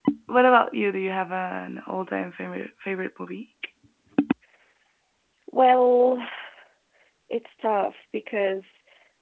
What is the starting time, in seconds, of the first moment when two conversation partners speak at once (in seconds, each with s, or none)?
none